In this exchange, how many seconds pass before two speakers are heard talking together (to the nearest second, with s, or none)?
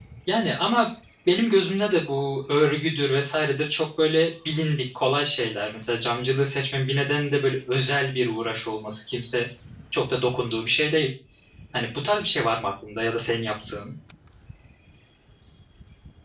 none